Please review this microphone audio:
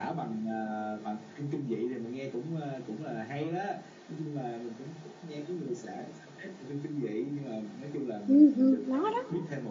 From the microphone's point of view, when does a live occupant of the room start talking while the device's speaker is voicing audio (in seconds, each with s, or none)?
8.3 s